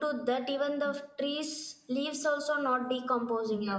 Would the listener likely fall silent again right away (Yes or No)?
No